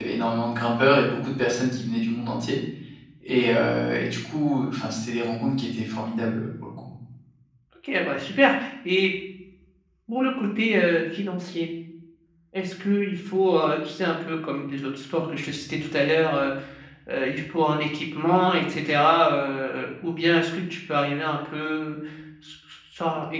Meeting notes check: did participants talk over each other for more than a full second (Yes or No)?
No